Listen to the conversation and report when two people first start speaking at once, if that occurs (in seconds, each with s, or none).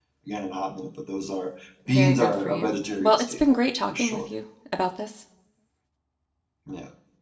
1.9 s